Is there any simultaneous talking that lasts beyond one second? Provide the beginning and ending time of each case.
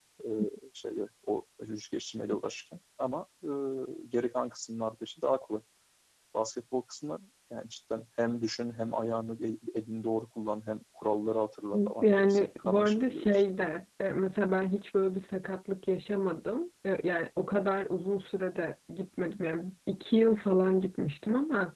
12.0-13.4

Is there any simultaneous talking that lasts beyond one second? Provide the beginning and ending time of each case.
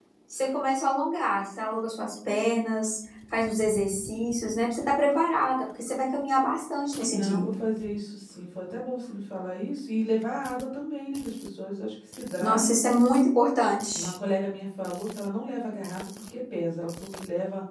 none

